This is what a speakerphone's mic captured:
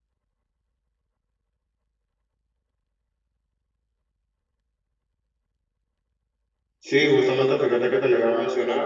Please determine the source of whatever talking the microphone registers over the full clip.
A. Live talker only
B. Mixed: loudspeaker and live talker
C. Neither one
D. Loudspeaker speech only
A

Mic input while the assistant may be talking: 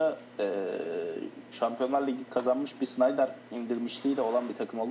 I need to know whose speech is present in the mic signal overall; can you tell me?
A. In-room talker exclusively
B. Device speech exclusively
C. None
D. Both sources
B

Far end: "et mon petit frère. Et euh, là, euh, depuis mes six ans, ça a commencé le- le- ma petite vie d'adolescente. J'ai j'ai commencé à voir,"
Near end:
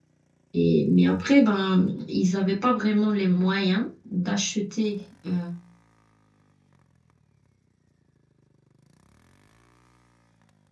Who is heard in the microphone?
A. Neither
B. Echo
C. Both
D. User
D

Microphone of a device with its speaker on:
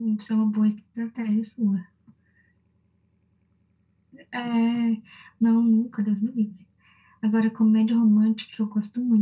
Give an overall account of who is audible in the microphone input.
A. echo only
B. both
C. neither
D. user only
A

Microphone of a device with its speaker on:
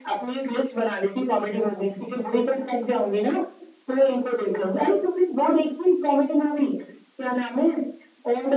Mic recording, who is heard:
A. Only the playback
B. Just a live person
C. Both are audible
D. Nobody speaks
A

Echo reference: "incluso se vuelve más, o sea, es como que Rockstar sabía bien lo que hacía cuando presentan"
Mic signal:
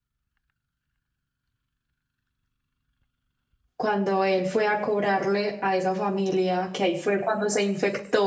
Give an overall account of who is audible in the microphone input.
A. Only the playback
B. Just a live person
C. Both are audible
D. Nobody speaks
B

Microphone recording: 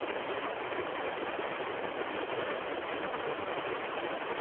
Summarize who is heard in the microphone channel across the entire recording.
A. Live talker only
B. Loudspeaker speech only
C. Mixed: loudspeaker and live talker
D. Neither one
D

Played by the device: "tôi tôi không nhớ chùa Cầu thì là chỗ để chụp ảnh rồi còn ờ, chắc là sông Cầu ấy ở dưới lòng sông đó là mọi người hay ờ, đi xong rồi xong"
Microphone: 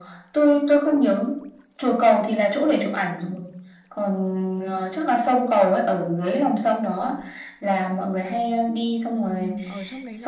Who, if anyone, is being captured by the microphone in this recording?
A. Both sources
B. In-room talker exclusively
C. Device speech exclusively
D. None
A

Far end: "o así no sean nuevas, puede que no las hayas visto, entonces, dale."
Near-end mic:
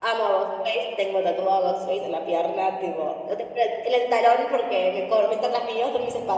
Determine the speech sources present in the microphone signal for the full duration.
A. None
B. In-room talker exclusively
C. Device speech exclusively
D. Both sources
B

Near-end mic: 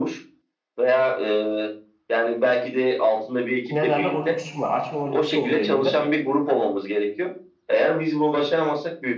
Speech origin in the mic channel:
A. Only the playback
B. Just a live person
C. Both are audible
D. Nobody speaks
C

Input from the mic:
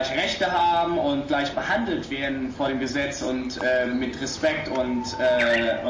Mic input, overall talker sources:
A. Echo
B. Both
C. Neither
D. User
A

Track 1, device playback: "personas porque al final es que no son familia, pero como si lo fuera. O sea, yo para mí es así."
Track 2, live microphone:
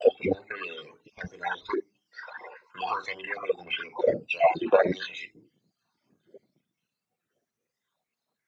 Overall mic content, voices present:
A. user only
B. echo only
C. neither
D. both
B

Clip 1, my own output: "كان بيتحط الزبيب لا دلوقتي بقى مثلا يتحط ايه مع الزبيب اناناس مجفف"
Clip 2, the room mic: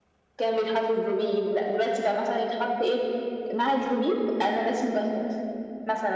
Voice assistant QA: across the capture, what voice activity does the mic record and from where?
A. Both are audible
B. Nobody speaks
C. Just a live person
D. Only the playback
D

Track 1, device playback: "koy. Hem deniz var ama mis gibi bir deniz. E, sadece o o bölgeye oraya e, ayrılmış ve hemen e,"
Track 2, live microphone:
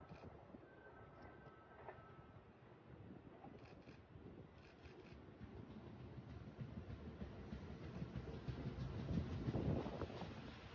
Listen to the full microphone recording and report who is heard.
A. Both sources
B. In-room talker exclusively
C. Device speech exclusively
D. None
D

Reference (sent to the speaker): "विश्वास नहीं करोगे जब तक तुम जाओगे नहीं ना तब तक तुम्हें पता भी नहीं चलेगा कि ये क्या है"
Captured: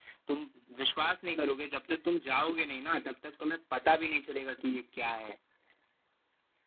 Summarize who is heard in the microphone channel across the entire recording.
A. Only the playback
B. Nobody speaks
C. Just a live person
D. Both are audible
A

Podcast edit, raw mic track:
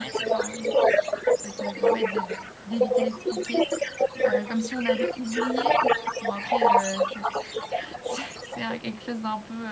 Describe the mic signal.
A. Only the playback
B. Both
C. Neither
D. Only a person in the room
B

